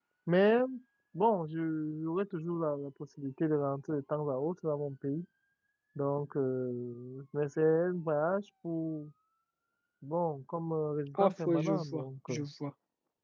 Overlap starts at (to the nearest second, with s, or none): 11 s